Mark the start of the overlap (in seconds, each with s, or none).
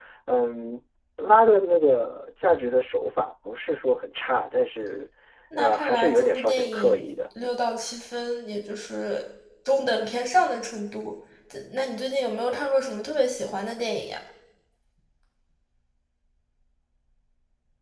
5.6 s